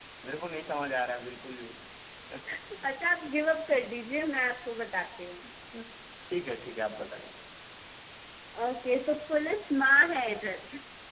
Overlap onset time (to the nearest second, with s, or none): none